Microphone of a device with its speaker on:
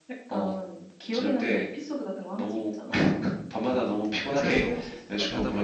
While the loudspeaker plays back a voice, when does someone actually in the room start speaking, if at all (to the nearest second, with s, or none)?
4 s